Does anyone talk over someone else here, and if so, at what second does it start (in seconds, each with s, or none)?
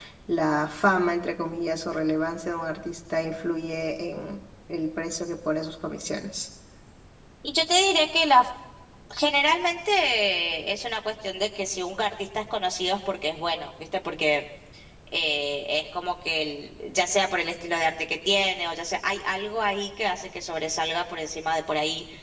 none